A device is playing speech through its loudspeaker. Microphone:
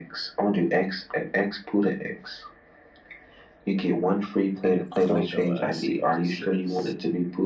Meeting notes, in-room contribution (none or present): present